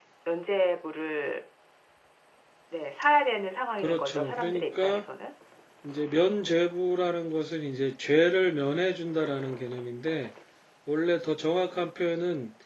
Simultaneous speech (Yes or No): Yes